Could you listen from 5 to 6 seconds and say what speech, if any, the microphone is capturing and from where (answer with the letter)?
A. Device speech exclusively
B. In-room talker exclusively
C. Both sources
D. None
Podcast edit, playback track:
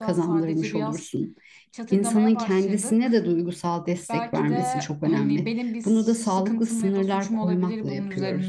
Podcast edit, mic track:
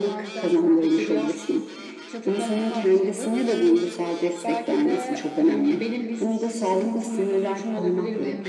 A